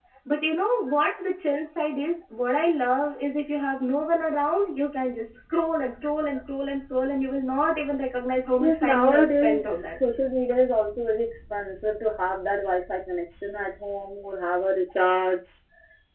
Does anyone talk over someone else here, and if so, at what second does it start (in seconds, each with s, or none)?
8.6 s